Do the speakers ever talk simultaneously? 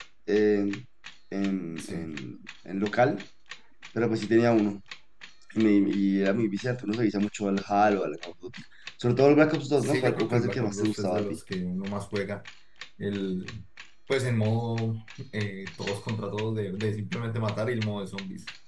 Yes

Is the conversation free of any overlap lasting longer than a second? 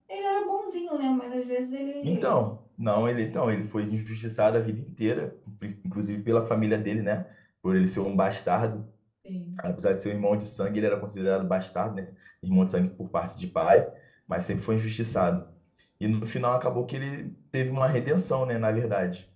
Yes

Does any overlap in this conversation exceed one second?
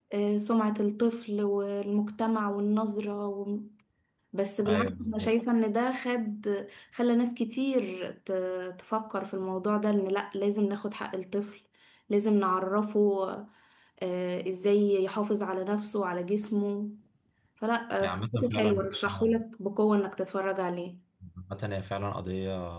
Yes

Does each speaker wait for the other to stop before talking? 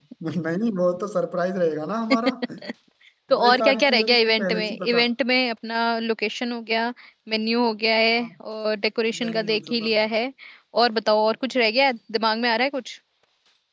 No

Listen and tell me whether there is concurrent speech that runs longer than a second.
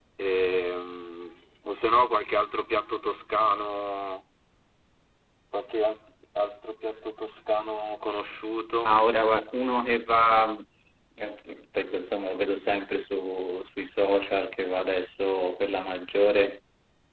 No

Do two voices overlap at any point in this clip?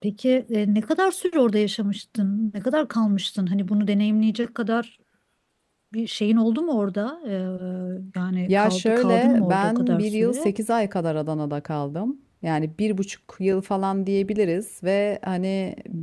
Yes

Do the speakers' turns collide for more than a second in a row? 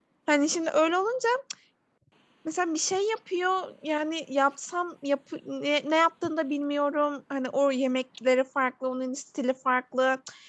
No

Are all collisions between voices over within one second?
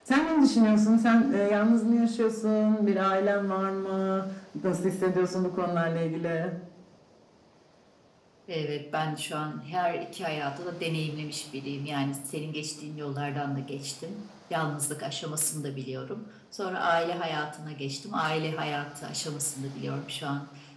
Yes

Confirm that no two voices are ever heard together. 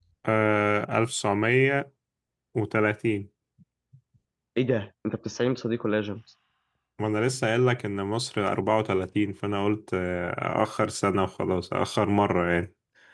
Yes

